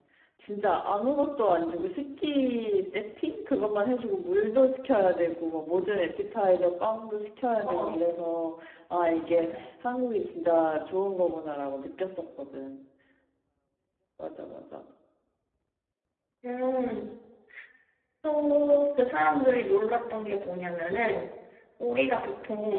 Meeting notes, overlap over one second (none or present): none